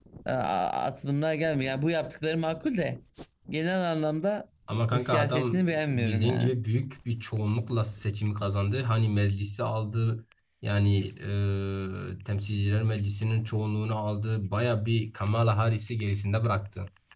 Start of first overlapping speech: 4.9 s

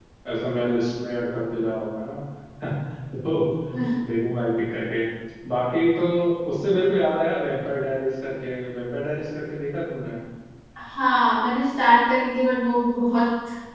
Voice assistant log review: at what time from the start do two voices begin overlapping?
none

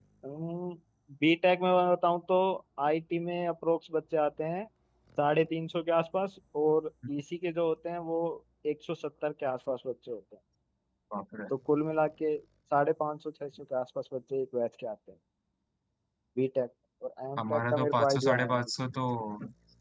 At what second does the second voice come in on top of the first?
17.4 s

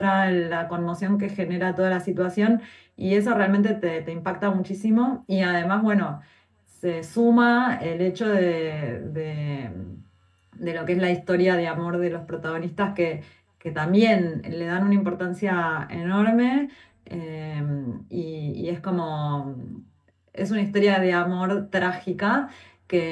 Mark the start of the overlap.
none

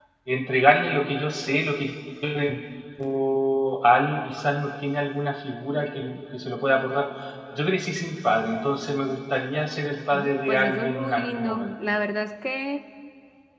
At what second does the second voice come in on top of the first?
10.1 s

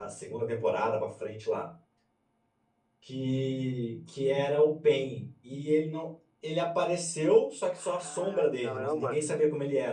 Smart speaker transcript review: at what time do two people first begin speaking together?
7.8 s

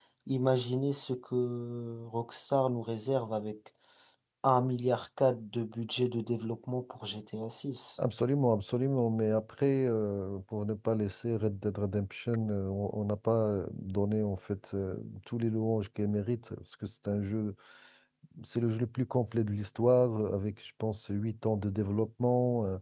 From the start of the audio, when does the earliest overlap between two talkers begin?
none

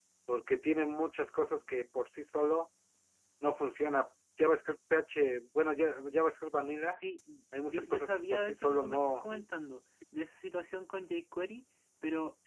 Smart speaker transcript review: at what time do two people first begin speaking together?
7.6 s

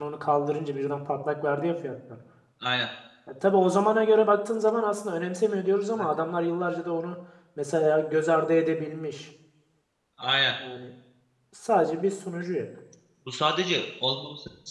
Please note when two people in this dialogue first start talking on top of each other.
none

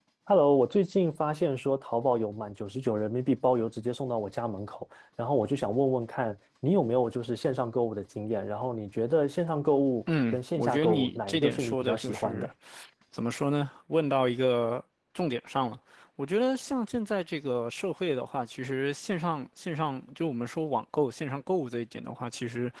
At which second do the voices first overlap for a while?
10.1 s

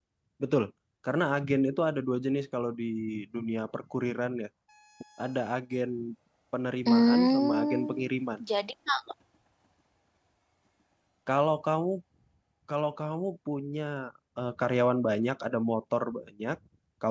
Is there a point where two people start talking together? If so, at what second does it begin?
6.9 s

